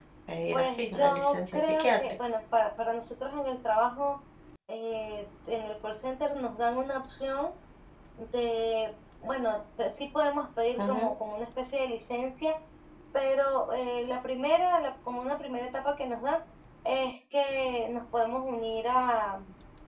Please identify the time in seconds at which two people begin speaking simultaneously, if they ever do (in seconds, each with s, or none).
0.5 s